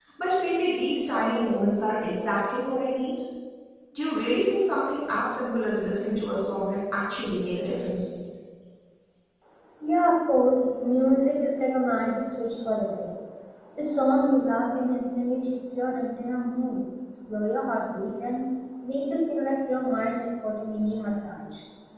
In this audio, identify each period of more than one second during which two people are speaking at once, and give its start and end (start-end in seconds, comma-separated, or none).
none